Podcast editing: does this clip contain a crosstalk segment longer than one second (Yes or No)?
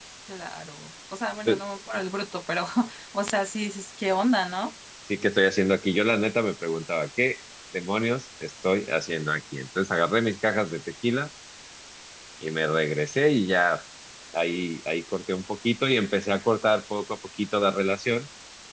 No